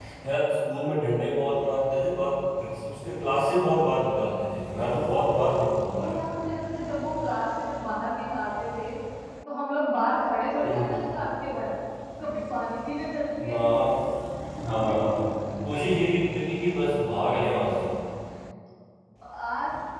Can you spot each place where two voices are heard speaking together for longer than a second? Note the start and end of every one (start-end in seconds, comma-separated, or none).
none